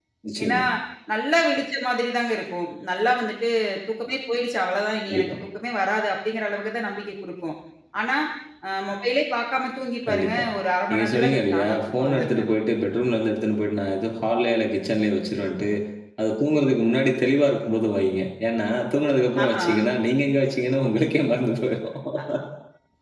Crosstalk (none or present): present